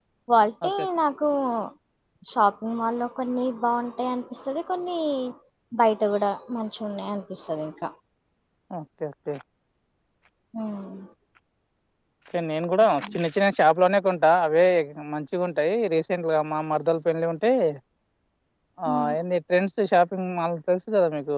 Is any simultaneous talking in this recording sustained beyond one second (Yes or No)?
No